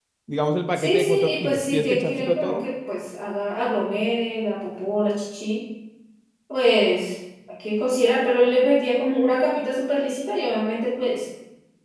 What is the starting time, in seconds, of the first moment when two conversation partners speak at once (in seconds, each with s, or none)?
0.8 s